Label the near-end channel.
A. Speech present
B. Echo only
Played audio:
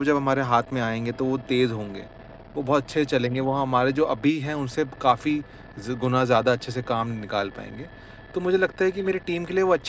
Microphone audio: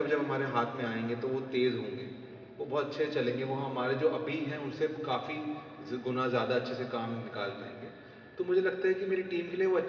B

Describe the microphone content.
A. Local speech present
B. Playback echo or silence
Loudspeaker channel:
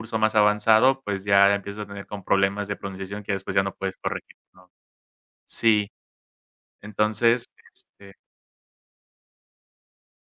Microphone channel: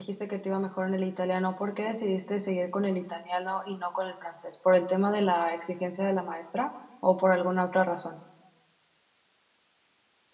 A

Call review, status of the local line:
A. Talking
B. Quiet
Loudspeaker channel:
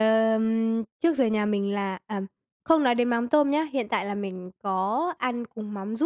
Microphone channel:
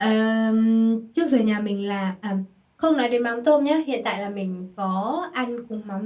B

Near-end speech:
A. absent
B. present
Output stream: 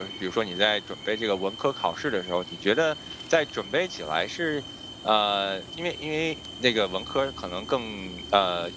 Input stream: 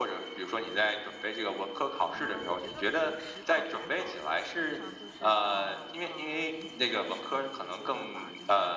B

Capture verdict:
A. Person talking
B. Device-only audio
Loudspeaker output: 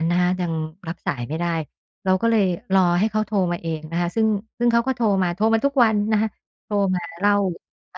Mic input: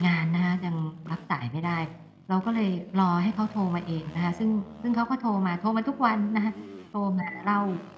B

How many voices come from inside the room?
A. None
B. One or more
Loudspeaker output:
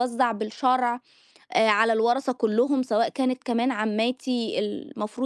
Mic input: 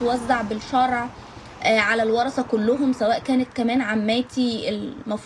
A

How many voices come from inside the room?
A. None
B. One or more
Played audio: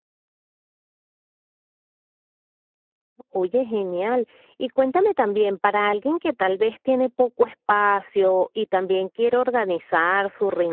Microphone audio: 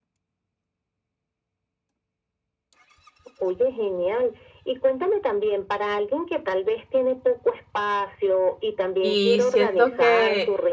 B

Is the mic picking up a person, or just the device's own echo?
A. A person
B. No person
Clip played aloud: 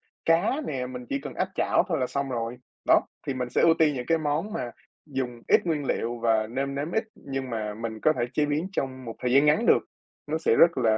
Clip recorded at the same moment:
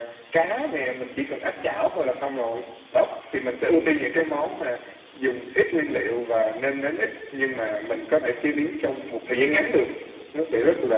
B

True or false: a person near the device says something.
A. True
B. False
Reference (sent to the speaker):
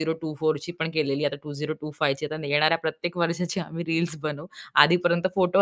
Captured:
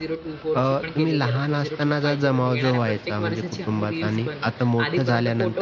A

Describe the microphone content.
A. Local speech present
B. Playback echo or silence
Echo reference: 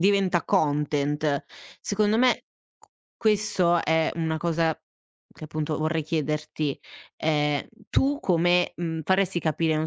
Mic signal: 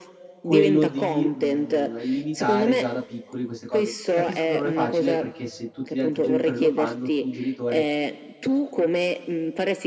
A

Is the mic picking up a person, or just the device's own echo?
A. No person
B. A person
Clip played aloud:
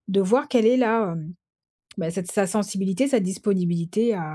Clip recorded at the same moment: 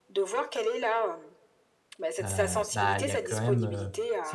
B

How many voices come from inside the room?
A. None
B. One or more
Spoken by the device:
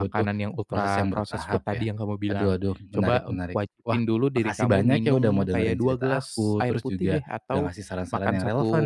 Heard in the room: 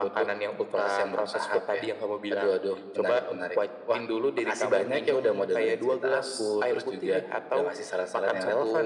A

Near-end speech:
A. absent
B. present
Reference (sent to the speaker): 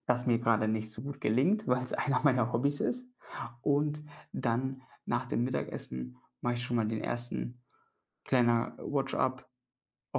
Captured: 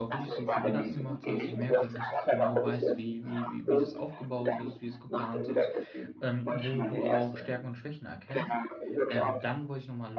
B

